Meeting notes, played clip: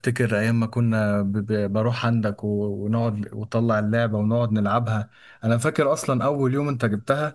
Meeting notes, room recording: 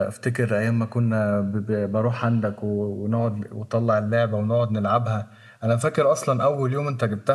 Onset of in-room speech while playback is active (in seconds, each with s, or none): none